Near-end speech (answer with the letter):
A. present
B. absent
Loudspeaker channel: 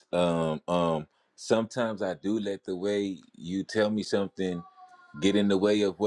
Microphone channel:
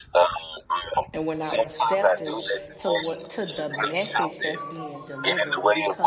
A